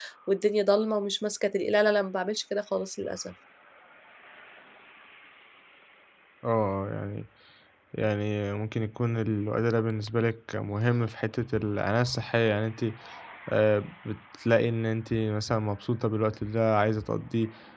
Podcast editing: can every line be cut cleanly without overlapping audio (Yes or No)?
Yes